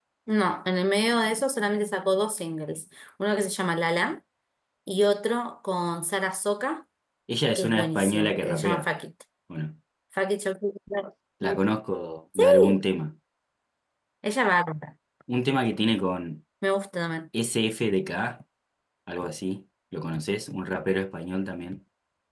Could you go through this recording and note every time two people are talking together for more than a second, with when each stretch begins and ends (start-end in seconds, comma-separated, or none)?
7.5-8.9